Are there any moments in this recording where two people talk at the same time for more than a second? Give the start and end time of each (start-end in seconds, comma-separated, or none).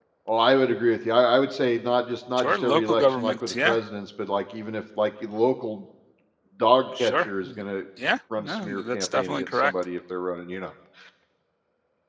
2.4-3.8, 8.4-9.7